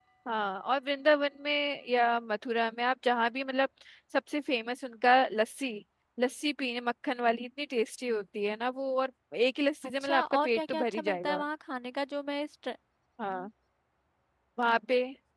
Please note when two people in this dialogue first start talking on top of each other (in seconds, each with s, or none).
10.0 s